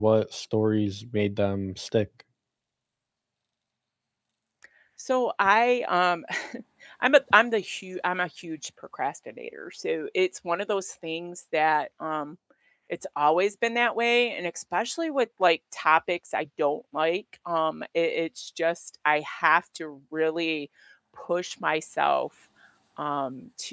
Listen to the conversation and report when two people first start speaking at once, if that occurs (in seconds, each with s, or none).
none